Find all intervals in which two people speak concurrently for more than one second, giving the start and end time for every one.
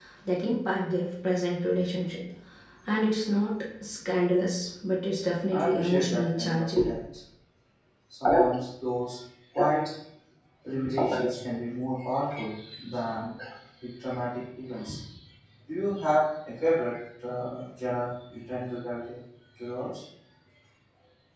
5.5-6.9

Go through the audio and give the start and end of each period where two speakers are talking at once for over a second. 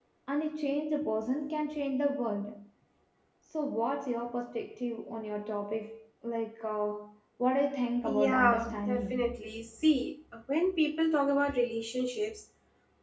8.0-9.3

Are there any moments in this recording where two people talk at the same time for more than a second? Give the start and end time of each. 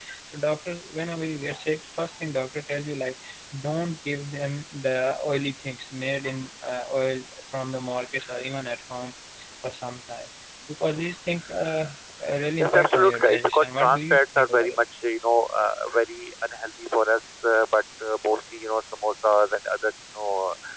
12.6-14.8

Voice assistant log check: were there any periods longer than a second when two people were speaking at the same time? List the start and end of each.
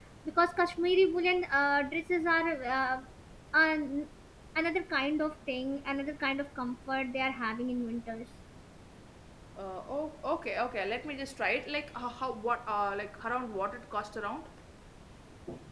none

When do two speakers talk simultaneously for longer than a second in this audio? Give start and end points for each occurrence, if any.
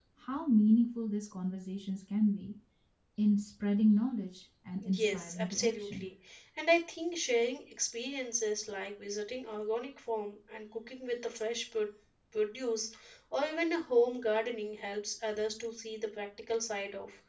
4.8-6.0

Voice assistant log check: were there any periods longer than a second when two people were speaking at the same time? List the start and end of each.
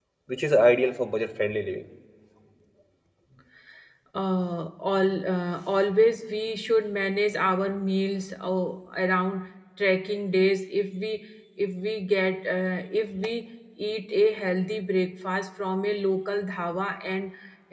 none

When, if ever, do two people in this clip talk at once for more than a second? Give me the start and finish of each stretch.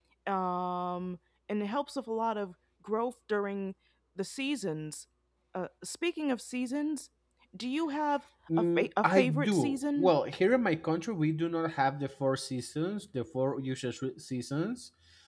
8.8-10.1

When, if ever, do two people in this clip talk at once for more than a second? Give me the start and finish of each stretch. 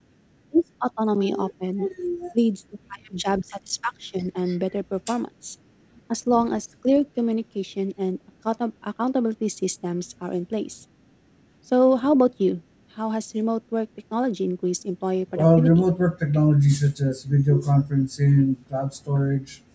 none

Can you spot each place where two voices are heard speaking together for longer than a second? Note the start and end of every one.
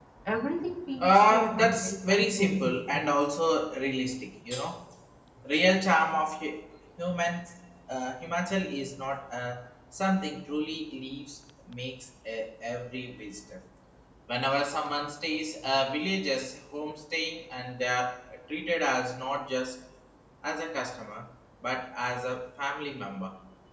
1.0-3.0

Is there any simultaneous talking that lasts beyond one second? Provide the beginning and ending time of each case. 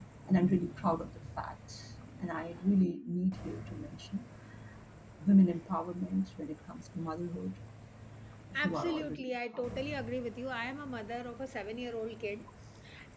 8.5-9.8

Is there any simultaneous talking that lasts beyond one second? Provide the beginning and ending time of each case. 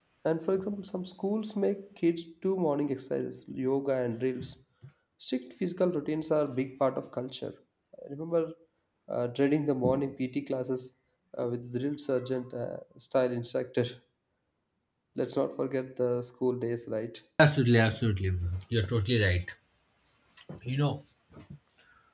none

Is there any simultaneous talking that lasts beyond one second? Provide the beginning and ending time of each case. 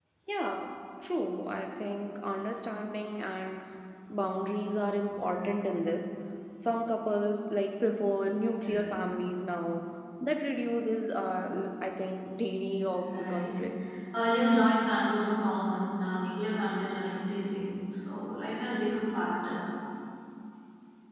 none

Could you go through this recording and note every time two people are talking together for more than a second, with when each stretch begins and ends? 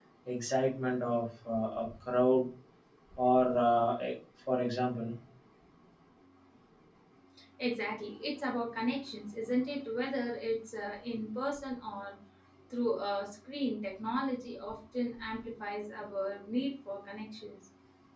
none

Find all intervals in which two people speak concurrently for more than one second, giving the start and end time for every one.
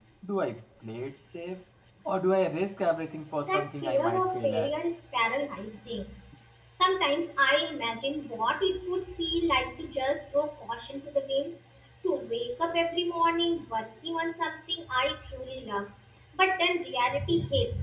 3.4-4.7

